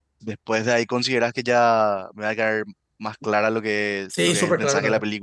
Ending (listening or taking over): taking over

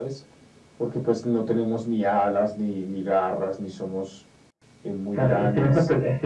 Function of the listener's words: taking over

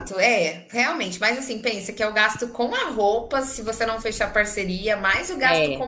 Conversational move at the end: listening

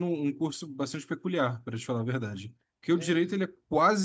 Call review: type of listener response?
listening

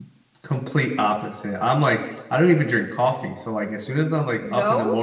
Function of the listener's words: listening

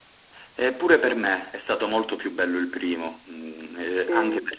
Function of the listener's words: listening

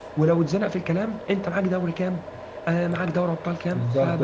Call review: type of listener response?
taking over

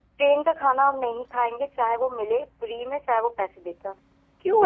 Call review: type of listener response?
taking over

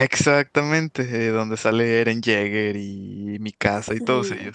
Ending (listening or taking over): taking over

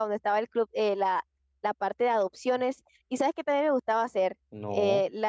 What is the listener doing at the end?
listening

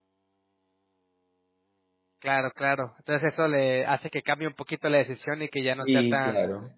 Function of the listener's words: taking over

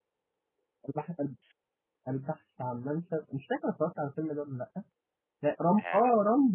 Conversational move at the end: listening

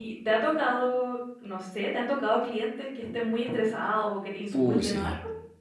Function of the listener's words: taking over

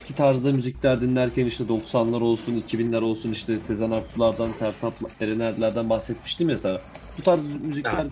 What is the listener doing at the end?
listening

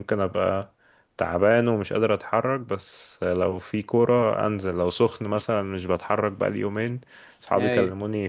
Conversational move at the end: listening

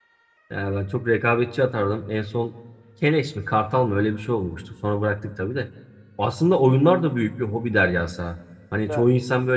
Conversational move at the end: listening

